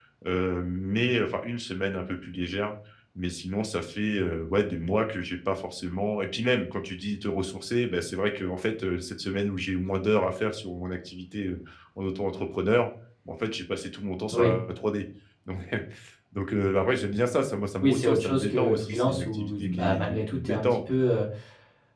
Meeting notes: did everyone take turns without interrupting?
No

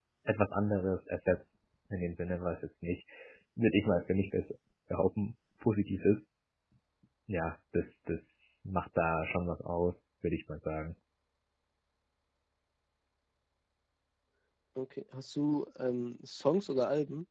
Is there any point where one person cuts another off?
No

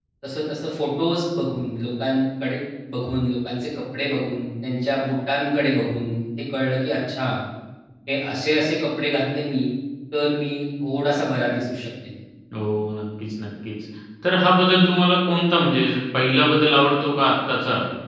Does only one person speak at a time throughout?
Yes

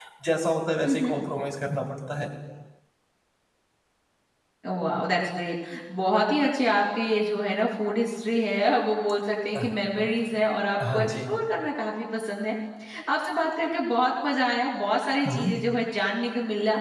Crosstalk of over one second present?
No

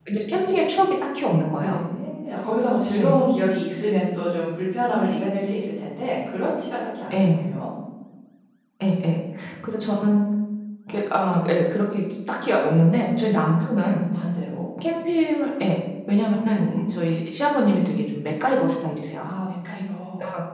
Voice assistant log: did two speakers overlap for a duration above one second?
No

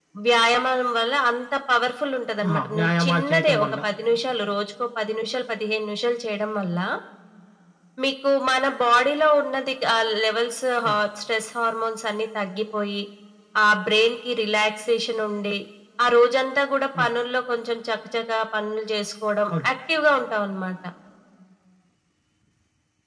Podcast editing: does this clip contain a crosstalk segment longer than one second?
Yes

